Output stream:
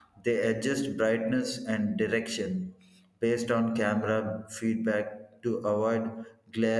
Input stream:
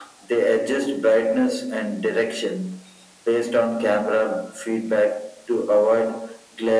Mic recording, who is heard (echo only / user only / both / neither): echo only